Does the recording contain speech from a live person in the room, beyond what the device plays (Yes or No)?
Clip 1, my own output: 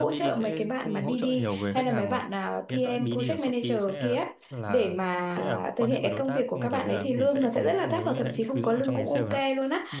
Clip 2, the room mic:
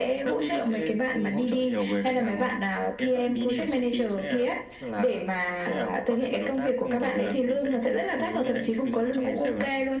No